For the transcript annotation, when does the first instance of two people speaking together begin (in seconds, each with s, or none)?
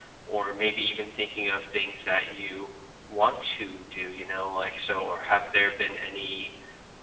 none